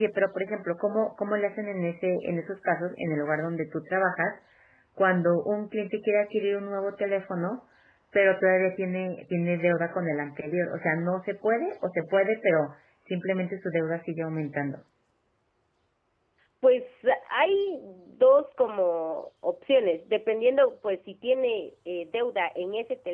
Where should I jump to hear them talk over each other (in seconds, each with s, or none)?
none